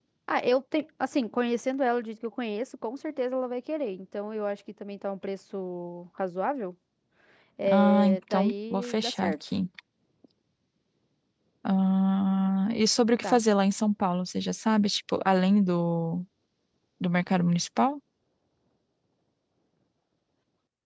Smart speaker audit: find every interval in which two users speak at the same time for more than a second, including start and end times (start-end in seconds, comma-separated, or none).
7.7-9.3